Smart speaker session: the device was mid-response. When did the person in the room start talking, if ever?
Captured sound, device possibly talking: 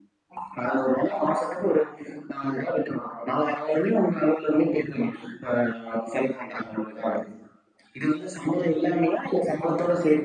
none

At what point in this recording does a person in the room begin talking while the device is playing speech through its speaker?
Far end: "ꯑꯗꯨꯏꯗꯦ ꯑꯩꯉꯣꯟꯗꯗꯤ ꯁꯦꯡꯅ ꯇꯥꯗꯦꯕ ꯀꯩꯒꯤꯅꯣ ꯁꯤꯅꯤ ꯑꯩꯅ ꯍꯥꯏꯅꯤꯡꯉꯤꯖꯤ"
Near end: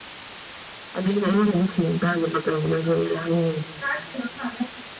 none

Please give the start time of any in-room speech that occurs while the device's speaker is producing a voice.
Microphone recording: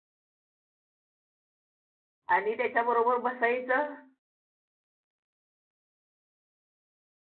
2 s

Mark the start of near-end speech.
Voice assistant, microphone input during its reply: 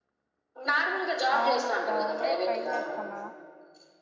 1 s

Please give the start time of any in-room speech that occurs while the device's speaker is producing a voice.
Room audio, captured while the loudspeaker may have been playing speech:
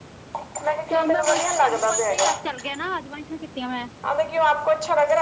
1 s

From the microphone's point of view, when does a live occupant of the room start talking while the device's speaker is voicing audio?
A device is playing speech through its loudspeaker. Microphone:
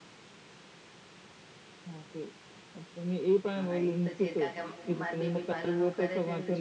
4 s

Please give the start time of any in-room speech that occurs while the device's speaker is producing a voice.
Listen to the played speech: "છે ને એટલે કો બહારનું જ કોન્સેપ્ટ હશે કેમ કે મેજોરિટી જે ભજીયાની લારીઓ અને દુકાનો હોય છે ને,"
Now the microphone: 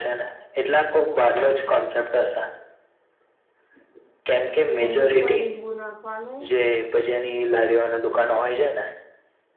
5 s

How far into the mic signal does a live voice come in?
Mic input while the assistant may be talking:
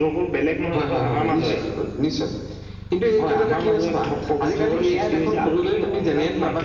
none

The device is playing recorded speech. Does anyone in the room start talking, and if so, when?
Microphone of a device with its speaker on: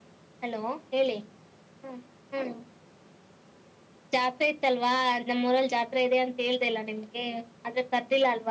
none

